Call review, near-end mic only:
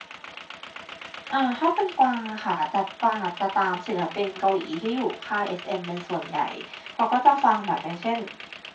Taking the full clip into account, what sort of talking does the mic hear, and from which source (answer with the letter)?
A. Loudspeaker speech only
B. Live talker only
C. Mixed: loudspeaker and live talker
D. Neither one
A